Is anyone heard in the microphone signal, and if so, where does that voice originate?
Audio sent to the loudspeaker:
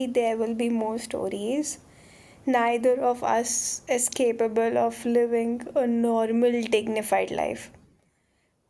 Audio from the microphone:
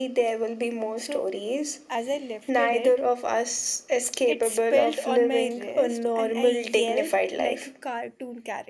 both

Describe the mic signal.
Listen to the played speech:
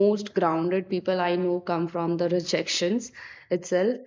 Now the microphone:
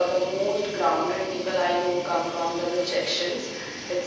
echo only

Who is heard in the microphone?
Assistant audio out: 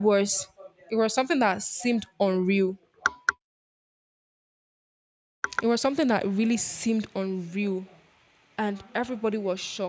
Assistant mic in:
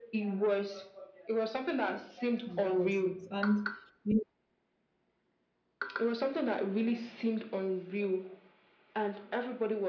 both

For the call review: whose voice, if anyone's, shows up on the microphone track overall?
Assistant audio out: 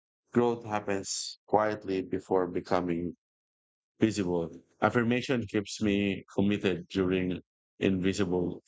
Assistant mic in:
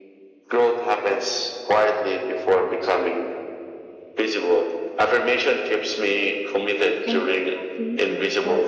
both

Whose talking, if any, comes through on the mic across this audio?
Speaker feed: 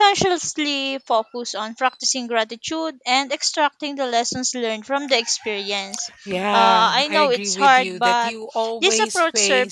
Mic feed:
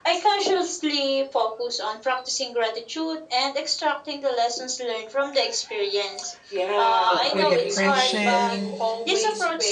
both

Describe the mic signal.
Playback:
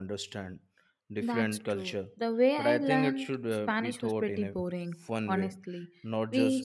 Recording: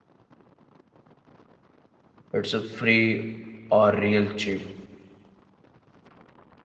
user only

